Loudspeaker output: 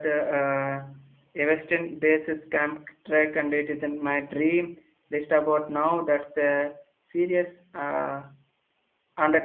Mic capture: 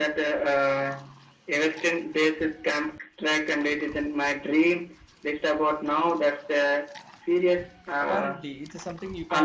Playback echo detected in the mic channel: Yes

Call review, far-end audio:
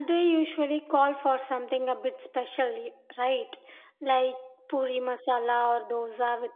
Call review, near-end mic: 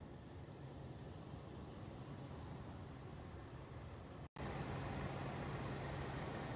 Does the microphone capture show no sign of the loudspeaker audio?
Yes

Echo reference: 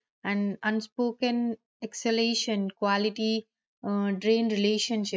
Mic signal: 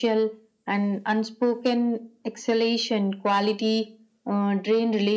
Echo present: Yes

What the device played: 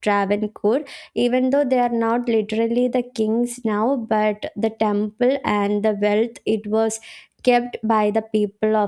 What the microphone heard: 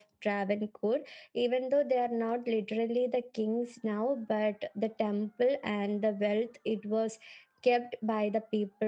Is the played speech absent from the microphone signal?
No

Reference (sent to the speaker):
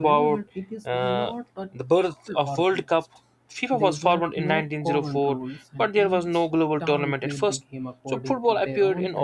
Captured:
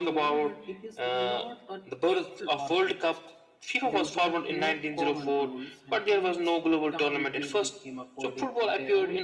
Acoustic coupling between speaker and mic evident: Yes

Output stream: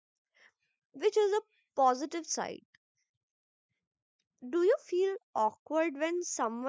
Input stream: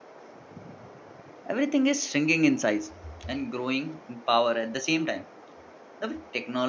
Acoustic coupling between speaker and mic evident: No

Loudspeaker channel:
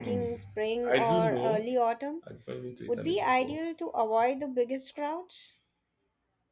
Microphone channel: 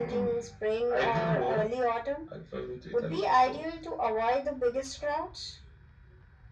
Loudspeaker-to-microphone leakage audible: Yes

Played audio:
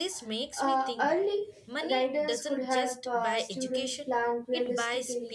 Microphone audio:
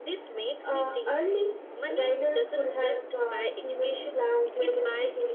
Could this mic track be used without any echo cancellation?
No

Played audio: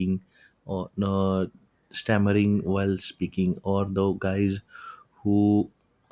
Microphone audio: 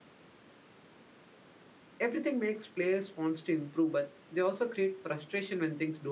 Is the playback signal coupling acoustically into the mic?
No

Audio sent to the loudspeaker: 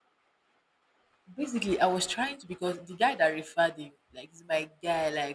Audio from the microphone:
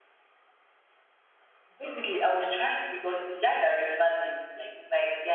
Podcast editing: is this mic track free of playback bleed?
No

